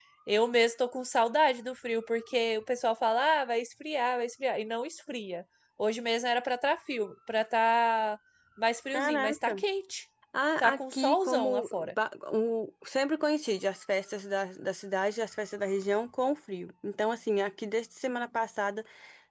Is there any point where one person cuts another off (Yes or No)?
Yes